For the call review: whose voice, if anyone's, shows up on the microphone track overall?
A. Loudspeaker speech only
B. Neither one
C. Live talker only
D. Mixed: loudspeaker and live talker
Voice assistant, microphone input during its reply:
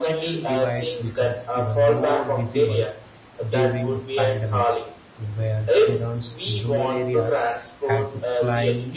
D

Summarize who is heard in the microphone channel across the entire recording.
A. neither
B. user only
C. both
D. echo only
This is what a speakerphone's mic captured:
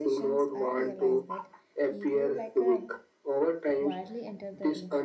C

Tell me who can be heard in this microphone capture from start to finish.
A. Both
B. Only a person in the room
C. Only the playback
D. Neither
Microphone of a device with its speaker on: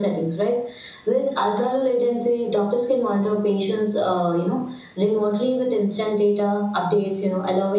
C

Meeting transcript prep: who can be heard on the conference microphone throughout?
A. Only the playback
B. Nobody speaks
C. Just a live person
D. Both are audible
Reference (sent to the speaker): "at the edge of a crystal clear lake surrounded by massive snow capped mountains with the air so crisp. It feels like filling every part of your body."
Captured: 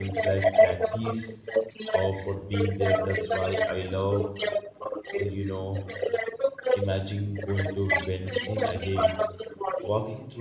D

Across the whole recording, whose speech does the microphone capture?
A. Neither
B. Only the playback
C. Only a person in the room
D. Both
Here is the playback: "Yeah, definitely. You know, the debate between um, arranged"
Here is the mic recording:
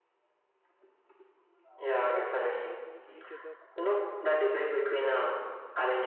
D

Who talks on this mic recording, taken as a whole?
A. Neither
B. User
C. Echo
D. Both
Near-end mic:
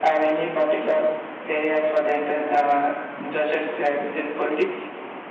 C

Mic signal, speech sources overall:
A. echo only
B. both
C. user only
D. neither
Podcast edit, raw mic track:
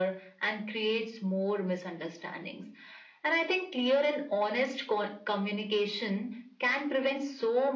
A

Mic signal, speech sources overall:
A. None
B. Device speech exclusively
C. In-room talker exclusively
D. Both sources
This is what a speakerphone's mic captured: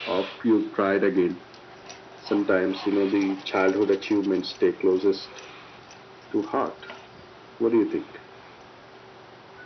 B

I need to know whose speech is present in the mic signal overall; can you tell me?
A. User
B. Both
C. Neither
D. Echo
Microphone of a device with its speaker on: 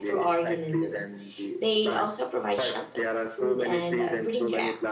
B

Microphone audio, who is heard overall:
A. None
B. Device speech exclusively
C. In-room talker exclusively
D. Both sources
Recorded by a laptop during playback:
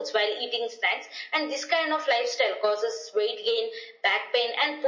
B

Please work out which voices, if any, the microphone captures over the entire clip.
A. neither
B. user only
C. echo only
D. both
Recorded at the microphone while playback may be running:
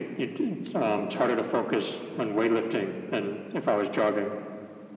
C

